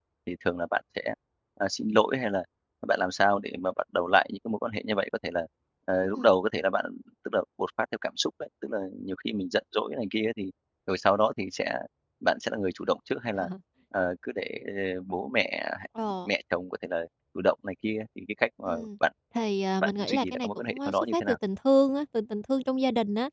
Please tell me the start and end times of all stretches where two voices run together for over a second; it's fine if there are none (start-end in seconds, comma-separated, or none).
19.8-21.4